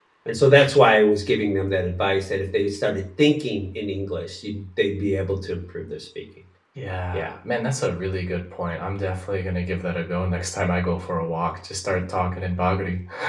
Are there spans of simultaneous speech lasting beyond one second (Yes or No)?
No